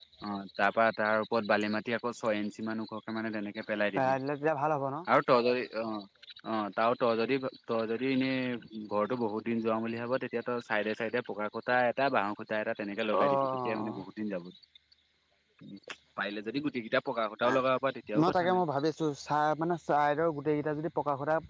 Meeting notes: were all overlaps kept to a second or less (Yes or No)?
Yes